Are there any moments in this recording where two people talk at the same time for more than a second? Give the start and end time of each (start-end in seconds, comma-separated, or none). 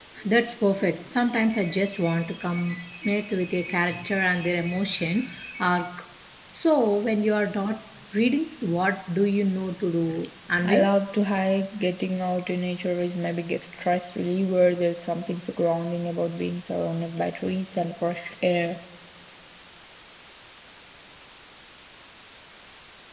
none